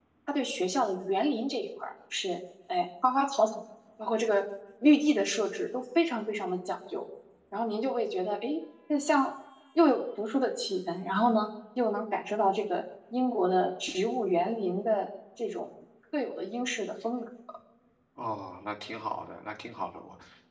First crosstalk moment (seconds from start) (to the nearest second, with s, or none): none